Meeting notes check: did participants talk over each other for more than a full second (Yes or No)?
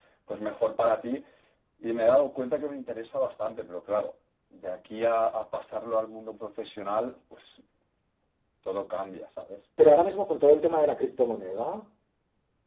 No